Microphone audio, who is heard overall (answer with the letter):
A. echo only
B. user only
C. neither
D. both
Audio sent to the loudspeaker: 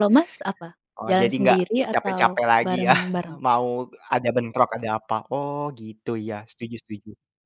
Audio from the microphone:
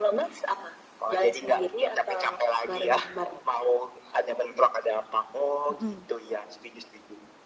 D